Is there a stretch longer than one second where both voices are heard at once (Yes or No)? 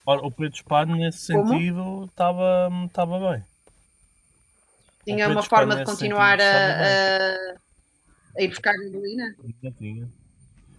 Yes